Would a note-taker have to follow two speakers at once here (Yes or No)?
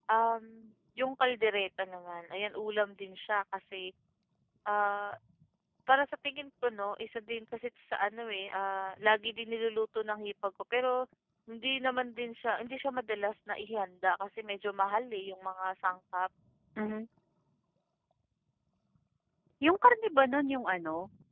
No